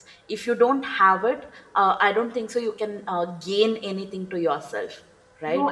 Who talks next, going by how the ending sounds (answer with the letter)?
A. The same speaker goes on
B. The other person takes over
B